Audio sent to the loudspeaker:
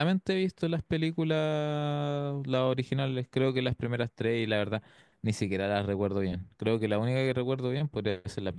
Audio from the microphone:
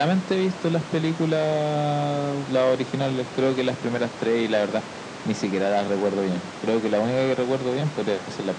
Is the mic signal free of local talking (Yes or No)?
Yes